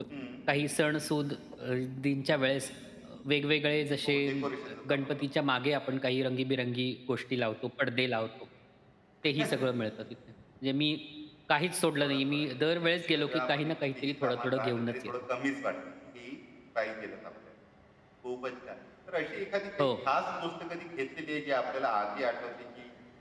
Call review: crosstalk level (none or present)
present